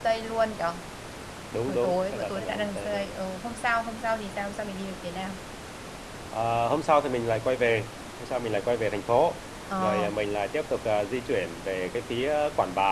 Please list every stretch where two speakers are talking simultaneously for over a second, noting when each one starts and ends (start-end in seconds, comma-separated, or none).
1.7-3.1